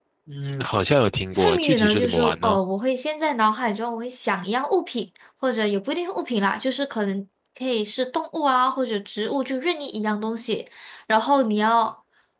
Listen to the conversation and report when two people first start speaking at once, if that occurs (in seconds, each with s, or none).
1.3 s